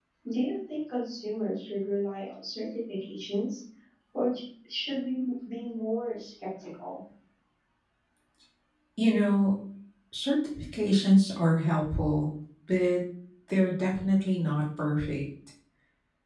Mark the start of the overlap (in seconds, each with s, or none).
none